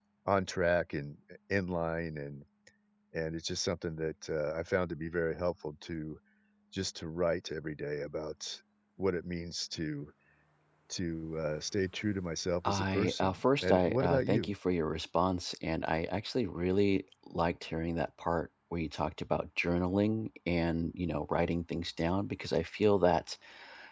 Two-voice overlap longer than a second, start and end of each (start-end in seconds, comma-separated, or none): 12.6-14.5